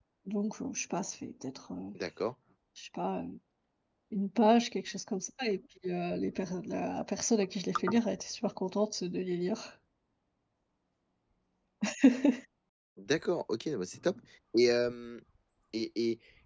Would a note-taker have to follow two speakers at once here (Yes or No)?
No